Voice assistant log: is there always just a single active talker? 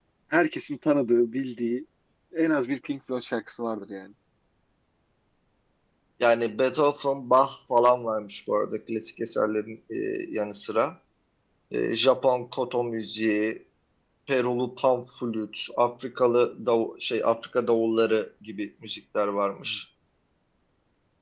Yes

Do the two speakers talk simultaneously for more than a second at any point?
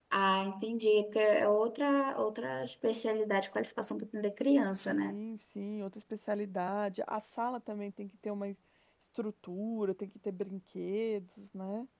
No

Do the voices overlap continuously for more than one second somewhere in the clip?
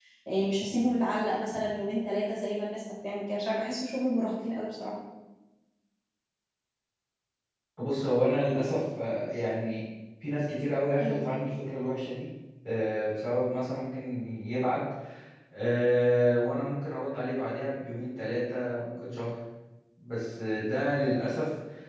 No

